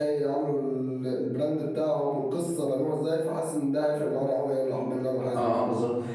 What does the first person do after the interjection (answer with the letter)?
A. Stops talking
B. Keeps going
A